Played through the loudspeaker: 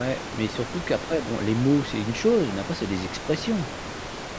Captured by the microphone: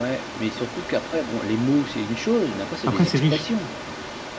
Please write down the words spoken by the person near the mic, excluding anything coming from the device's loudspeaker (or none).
Après c'est riche